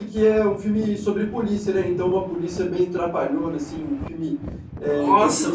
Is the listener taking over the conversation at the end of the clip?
No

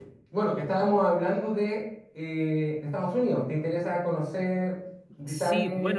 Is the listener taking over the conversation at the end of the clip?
Yes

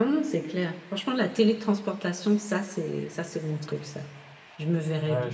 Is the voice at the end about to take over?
Yes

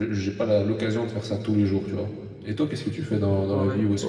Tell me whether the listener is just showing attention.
No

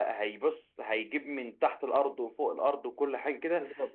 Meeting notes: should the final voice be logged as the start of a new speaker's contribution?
No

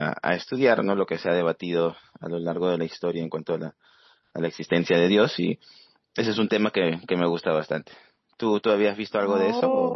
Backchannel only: No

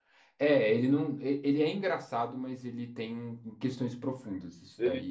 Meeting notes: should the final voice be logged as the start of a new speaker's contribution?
Yes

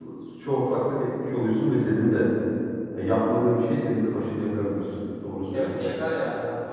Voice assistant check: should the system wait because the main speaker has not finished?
No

